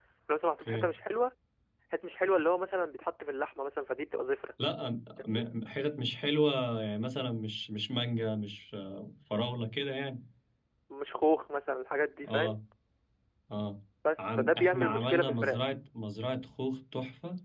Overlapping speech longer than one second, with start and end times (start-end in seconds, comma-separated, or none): 14.4-15.7